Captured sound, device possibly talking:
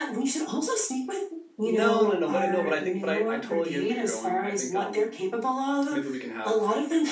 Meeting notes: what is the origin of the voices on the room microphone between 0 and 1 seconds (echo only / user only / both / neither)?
echo only